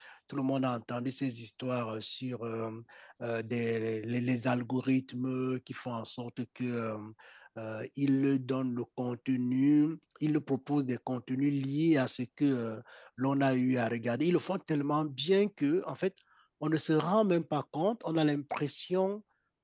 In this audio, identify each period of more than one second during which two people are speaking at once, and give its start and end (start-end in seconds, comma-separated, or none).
none